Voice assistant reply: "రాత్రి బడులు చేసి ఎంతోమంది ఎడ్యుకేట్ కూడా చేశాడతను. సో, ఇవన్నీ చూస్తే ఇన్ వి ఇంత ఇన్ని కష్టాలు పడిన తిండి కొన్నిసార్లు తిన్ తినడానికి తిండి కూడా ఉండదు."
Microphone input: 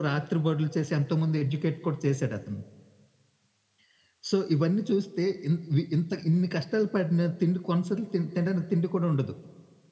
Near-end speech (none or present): none